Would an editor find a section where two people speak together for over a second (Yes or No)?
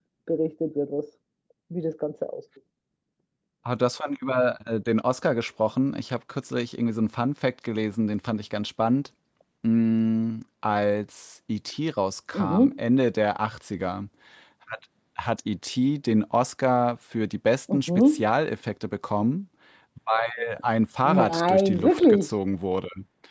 Yes